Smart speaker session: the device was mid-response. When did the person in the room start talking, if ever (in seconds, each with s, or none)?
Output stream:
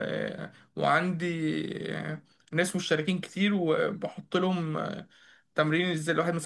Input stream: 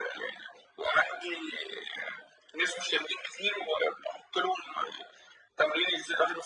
none